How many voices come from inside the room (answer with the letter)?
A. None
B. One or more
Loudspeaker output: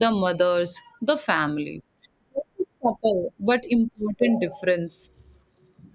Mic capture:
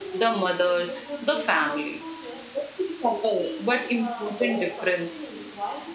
B